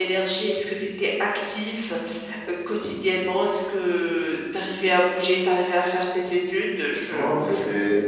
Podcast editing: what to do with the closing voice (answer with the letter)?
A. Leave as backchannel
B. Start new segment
B